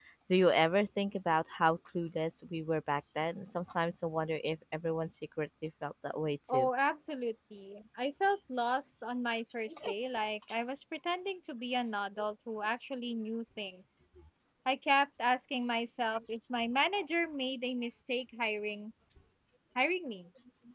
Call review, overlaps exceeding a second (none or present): none